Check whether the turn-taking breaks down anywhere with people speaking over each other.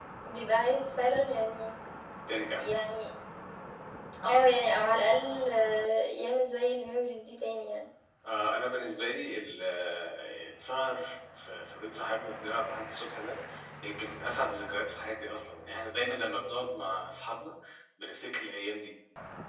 No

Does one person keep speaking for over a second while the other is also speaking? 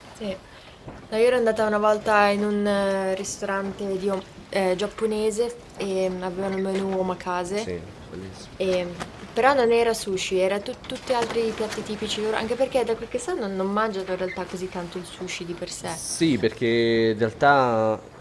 No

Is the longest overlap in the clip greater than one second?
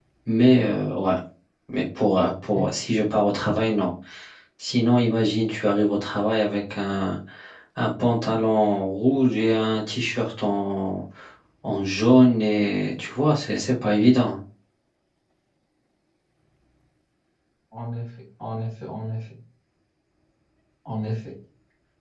No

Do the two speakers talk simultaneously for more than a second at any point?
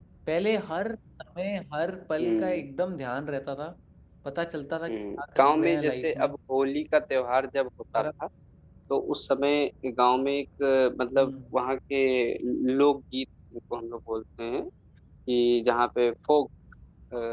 Yes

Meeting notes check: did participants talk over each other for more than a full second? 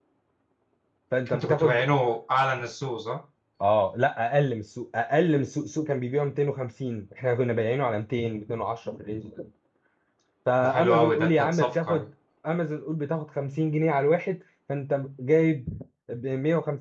Yes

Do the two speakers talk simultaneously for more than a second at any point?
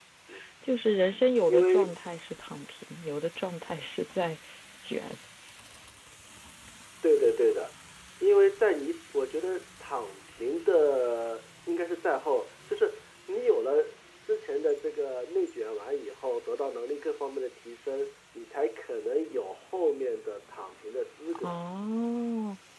No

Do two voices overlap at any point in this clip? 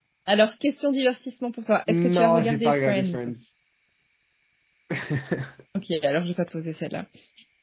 Yes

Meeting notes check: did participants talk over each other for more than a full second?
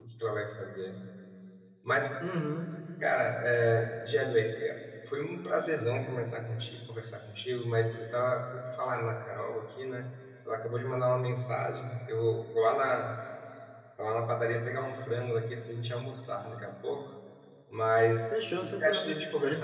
Yes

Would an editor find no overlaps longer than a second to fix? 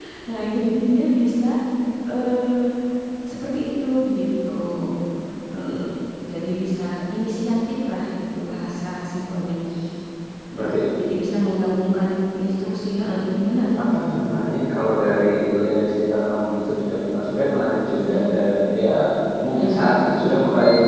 Yes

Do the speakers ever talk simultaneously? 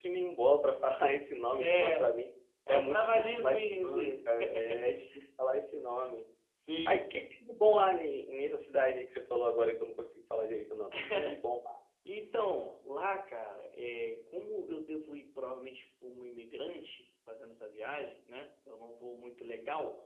Yes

